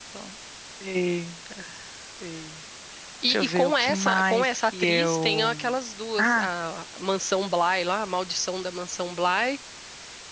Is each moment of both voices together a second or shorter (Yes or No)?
No